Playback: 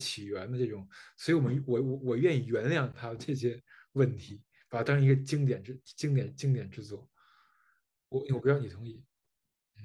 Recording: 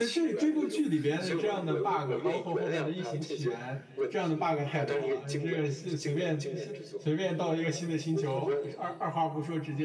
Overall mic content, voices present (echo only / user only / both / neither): both